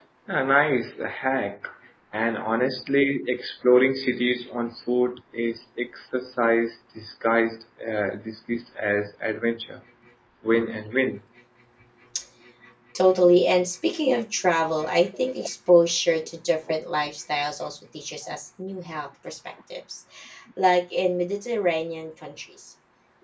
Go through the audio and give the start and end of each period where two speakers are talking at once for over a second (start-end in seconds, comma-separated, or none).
none